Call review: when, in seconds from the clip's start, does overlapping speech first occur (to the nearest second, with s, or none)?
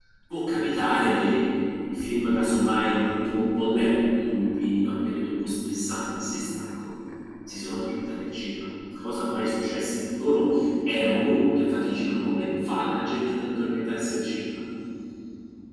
none